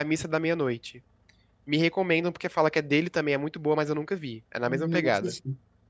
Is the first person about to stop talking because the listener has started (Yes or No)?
Yes